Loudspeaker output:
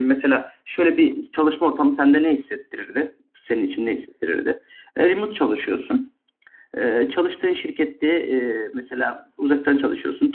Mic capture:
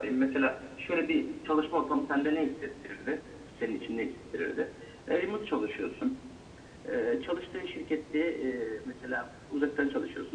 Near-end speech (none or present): none